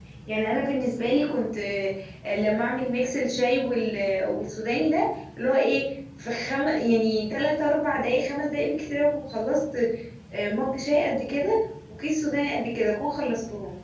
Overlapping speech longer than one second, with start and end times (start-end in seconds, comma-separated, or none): none